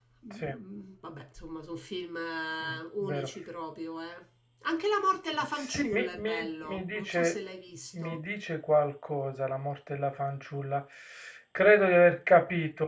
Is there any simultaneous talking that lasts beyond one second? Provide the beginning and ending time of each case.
5.5-7.3

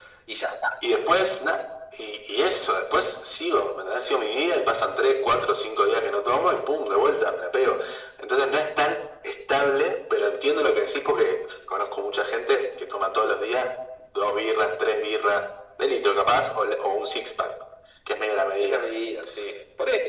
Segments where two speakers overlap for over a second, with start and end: none

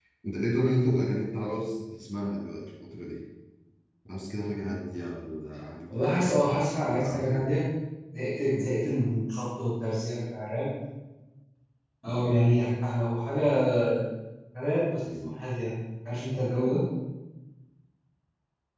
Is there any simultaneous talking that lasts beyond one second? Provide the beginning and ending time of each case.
5.9-7.5

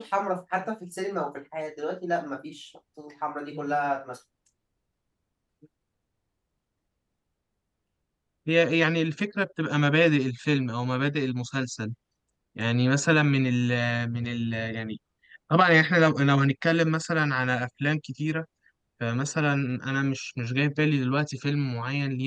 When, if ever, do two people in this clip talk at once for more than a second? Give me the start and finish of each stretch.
none

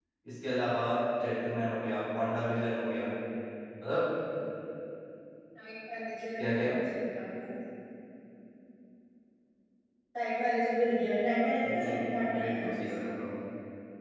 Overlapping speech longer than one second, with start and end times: 11.6-12.8

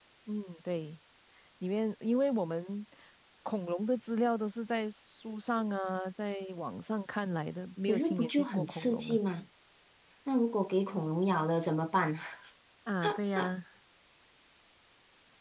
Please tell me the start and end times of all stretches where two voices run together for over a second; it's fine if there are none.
7.9-9.2

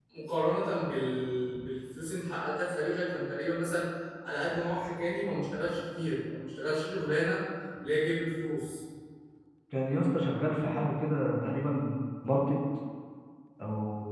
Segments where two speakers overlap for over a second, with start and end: none

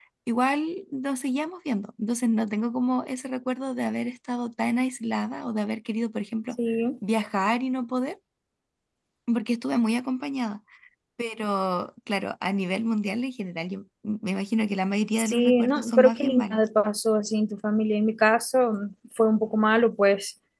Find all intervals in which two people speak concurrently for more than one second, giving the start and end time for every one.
15.2-16.6

